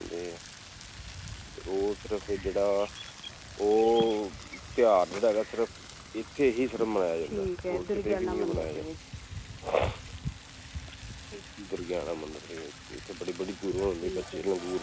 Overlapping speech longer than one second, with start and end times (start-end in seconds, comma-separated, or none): 7.2-8.8